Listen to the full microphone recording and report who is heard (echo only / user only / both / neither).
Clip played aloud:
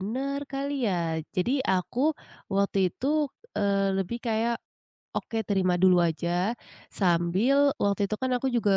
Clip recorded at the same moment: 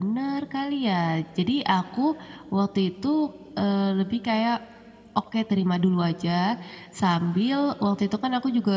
echo only